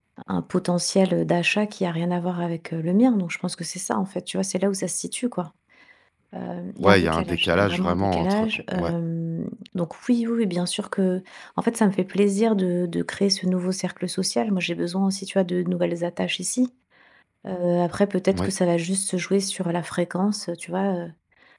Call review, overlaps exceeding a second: present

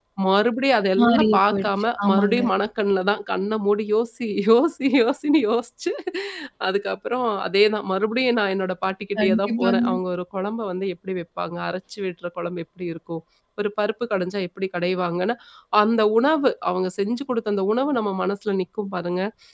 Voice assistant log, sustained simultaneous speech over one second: present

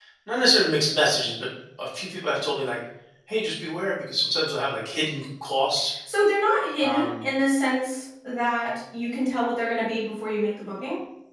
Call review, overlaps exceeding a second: none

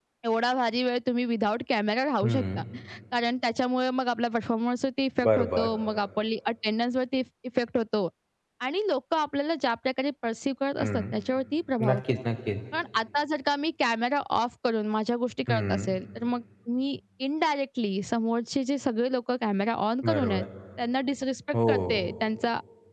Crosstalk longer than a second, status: none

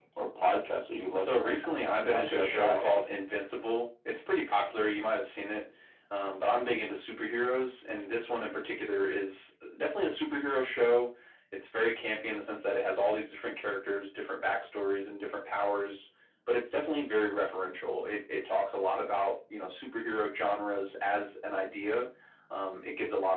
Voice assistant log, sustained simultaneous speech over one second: present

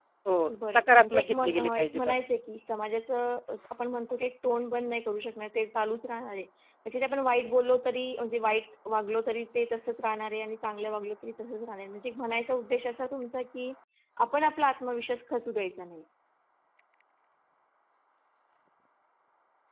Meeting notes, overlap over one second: present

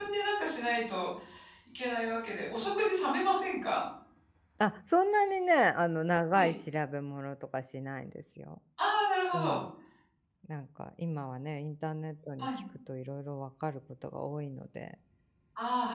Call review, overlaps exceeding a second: none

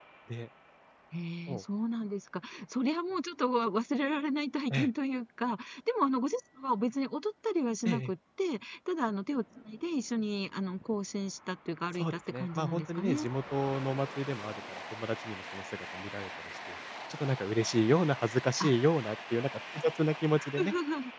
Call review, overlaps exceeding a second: present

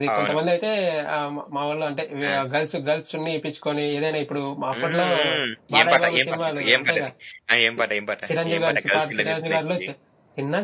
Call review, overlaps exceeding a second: present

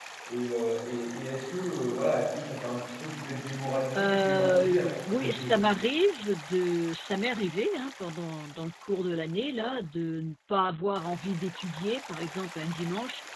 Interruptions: present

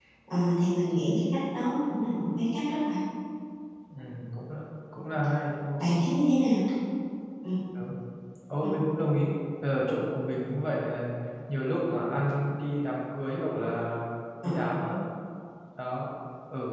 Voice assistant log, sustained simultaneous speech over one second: none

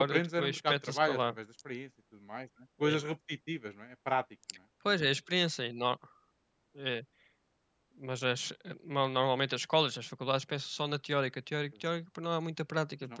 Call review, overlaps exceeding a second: present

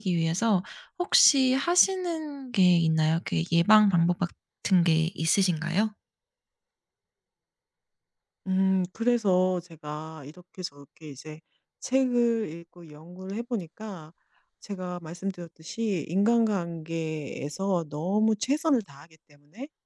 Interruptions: none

